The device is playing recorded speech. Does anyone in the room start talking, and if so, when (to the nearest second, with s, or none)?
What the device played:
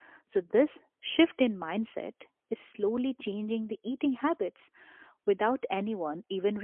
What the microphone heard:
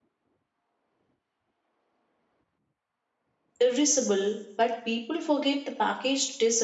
4 s